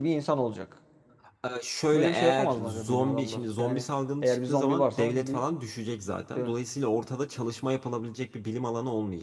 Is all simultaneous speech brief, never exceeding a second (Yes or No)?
No